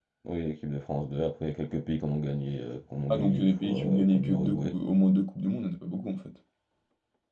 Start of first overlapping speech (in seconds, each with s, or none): 3.1 s